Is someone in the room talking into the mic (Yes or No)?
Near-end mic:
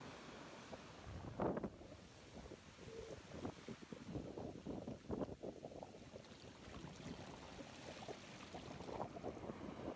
No